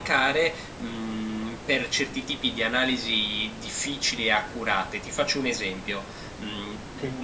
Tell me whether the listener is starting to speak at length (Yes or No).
No